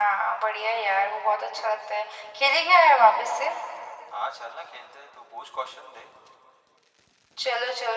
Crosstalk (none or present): none